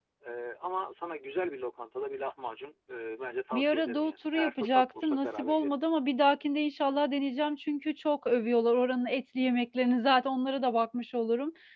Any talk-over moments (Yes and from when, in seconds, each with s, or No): Yes, from 3.5 s